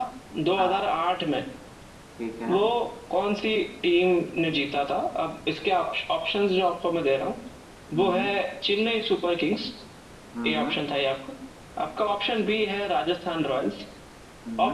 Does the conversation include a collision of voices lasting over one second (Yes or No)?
No